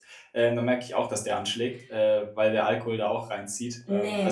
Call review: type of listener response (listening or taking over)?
taking over